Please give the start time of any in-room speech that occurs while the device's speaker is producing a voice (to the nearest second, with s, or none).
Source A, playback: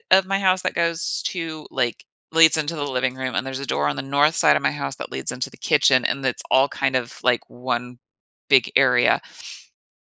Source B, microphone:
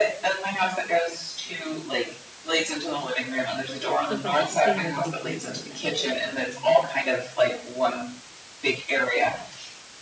4 s